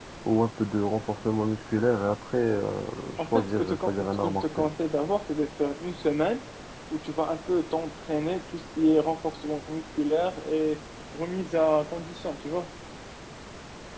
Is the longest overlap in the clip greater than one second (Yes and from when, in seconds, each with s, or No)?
Yes, from 3.2 s